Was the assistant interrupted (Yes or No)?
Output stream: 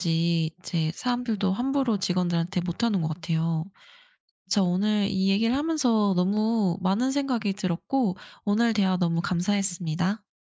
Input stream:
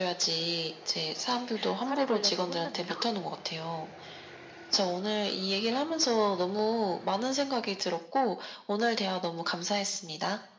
Yes